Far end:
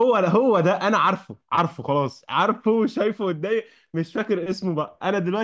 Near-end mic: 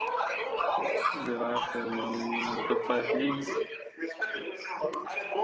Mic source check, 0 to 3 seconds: both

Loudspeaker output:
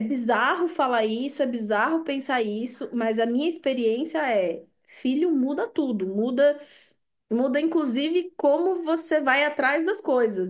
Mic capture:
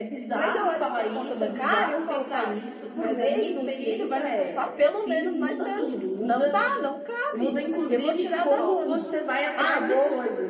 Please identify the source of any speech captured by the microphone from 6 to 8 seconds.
both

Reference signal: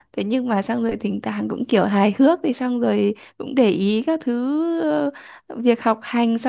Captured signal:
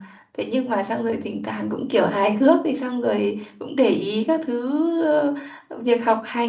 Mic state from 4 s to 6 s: echo only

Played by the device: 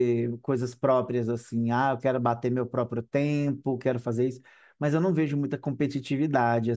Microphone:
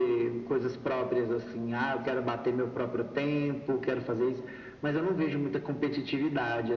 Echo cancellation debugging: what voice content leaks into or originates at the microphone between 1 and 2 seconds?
echo only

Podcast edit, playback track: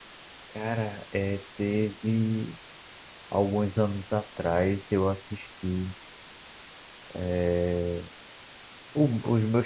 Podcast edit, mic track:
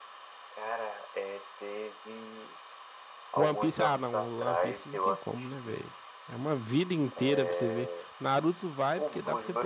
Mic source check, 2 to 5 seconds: both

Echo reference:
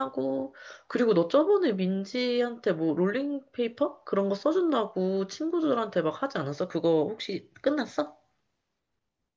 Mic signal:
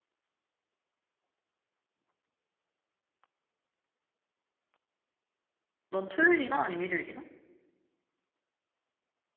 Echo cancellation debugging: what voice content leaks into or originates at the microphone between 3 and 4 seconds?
neither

